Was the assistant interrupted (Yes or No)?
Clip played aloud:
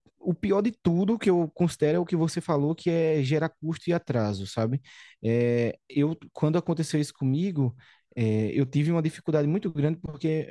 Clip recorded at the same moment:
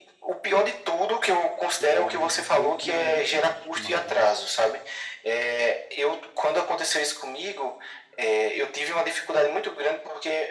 Yes